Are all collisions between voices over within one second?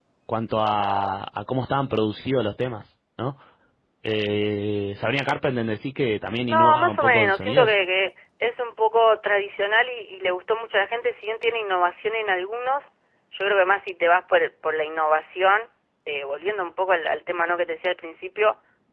No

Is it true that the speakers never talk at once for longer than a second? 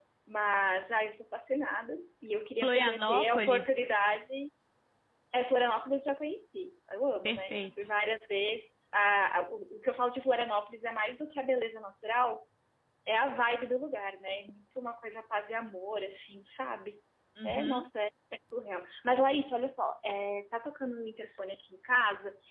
No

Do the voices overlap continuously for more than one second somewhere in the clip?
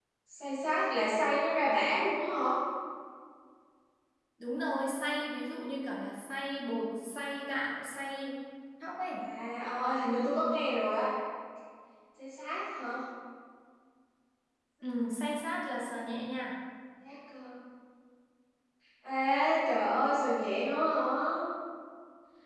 No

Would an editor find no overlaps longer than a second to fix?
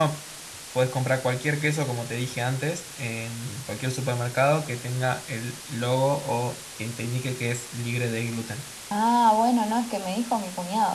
Yes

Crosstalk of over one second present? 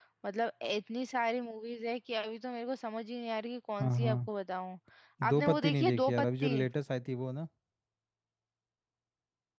Yes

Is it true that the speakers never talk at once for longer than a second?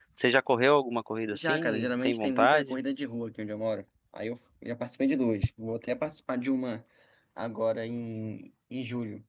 No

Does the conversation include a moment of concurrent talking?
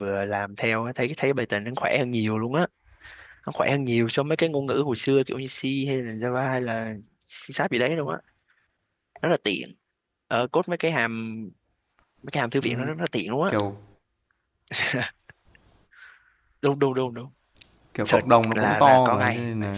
Yes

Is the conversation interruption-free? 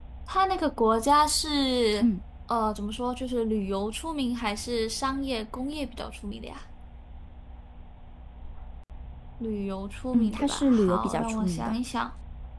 No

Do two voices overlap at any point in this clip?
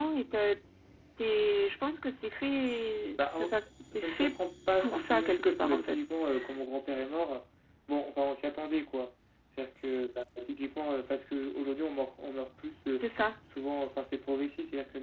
Yes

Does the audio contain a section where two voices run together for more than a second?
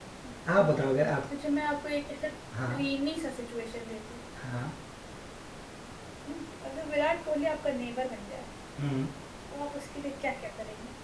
No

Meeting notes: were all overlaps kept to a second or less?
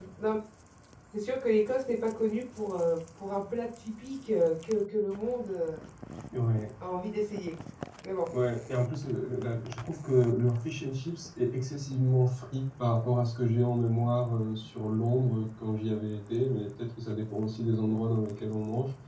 Yes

